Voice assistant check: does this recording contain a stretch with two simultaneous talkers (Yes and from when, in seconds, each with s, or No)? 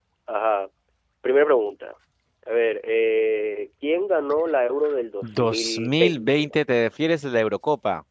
Yes, from 5.2 s